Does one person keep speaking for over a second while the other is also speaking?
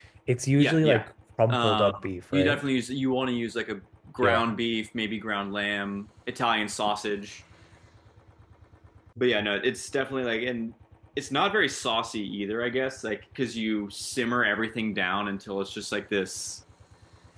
No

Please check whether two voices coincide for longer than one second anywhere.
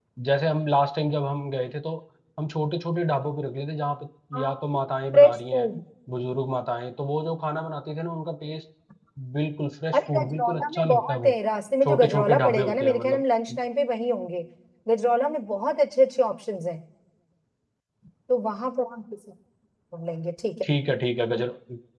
Yes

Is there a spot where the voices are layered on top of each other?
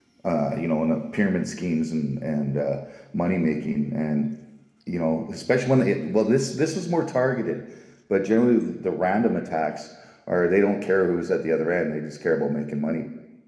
No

